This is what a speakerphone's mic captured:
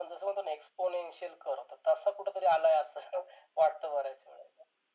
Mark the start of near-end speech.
none

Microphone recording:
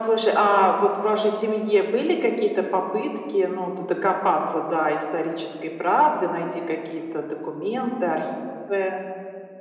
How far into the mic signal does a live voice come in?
none

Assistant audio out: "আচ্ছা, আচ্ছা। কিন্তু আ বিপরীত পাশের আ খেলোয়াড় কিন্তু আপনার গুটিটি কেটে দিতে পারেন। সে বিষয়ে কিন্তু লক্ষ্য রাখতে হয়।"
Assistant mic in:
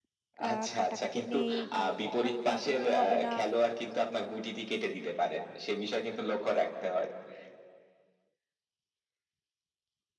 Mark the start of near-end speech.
0.5 s

